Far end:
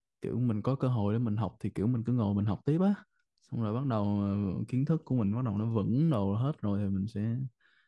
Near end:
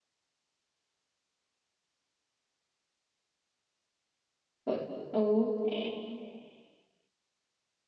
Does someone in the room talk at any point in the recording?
Yes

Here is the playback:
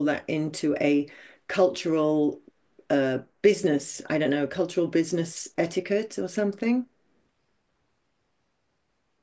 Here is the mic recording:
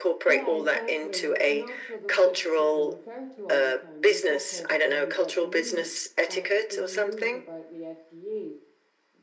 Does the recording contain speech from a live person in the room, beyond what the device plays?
Yes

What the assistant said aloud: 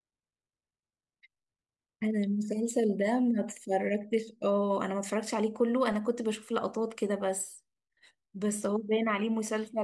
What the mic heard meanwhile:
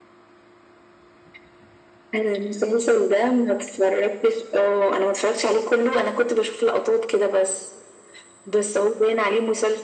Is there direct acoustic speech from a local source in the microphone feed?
No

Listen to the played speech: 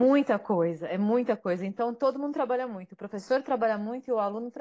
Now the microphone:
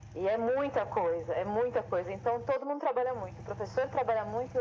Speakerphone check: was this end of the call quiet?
Yes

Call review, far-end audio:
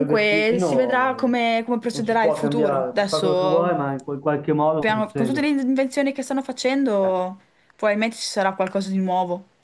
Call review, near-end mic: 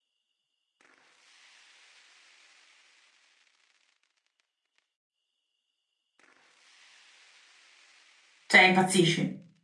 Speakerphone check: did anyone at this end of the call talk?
Yes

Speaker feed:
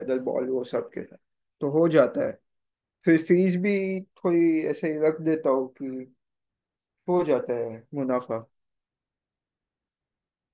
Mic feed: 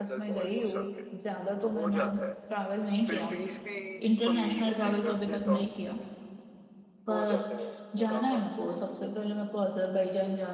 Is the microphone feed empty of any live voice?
No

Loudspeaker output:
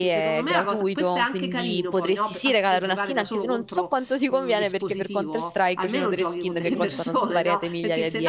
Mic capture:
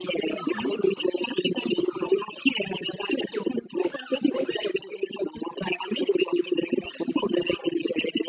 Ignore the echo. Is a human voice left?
Yes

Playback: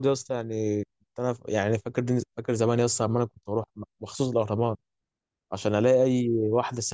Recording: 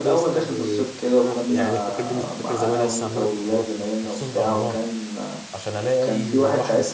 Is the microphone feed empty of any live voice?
No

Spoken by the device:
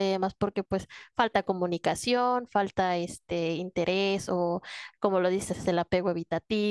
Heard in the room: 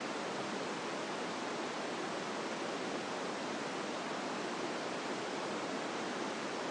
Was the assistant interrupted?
No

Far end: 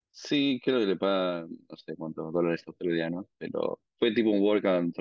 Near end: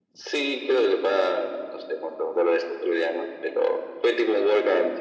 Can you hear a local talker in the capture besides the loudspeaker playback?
No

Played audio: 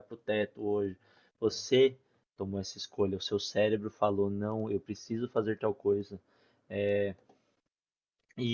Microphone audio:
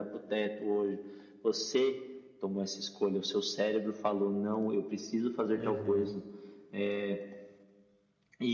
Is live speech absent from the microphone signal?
No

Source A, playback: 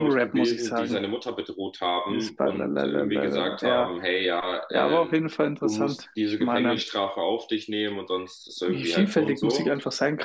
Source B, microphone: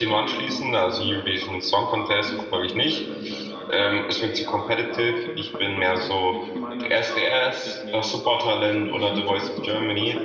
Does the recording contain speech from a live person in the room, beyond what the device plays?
Yes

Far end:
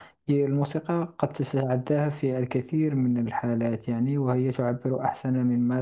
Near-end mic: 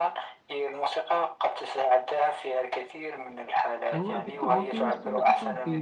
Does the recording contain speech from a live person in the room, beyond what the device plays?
Yes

